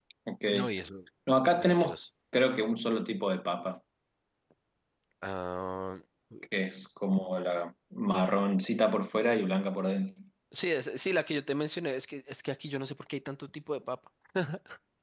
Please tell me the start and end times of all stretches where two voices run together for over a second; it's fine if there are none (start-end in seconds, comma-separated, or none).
none